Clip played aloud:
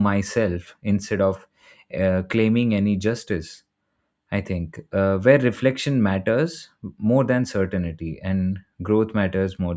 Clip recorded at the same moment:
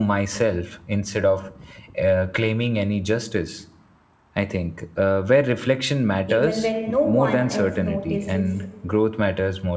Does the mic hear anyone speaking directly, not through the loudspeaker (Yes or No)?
Yes